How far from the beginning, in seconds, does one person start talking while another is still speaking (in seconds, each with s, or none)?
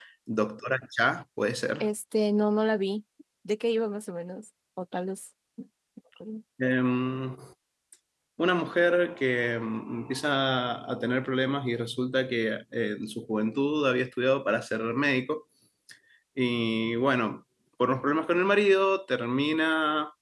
none